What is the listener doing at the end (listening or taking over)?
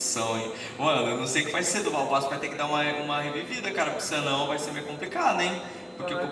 listening